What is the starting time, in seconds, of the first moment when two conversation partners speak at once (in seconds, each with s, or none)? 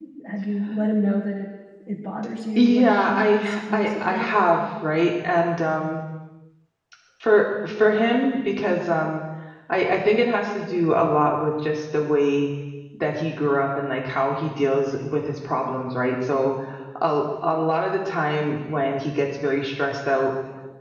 2.6 s